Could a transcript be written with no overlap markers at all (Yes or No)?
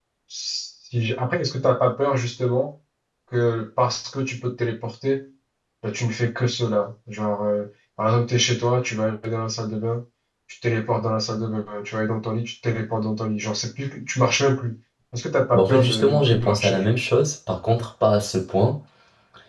No